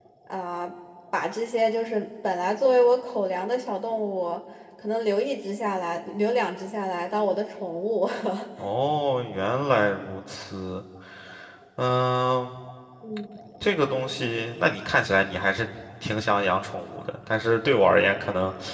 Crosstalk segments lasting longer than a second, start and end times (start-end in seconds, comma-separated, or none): none